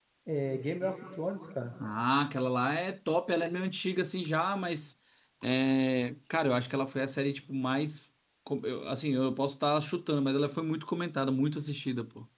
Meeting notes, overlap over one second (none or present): none